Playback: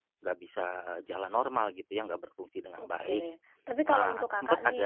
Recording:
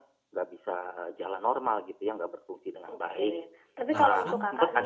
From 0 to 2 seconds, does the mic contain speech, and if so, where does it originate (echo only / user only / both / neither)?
echo only